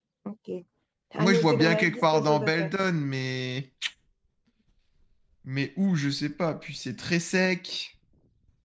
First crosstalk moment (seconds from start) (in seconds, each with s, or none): 1.2 s